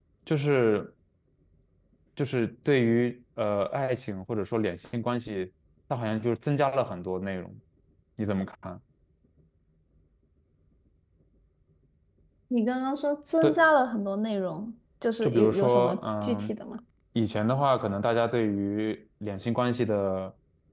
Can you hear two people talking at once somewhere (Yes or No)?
Yes